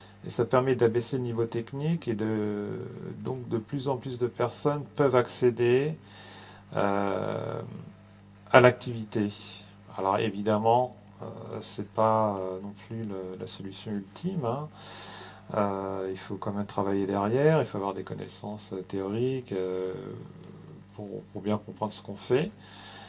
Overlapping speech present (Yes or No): No